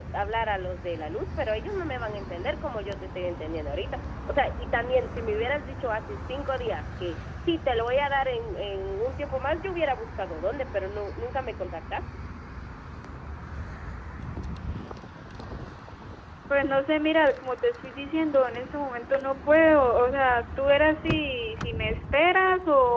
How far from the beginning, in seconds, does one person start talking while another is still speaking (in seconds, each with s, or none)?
none